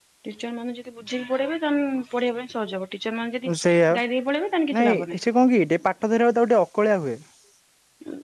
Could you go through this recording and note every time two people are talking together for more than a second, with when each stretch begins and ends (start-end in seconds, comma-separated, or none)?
none